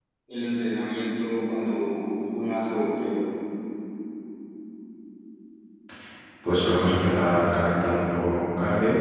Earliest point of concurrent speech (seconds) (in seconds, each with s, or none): none